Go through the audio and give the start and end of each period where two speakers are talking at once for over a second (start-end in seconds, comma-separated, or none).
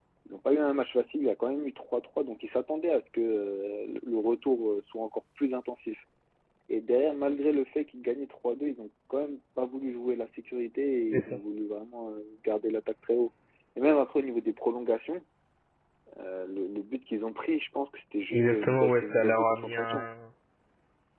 18.3-20.1